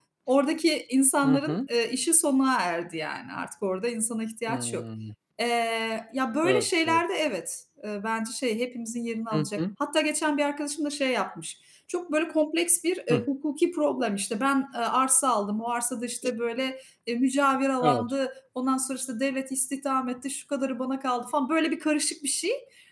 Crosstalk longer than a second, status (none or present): none